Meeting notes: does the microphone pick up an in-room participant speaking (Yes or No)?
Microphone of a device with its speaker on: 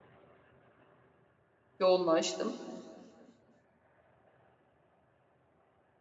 Yes